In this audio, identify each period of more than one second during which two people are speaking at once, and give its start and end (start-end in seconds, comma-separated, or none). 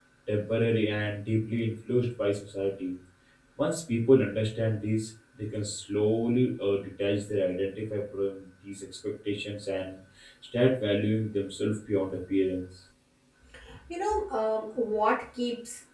none